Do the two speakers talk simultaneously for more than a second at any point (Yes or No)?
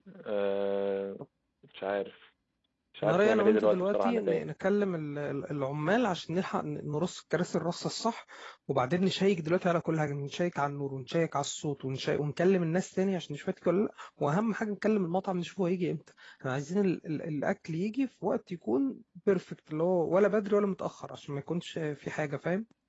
Yes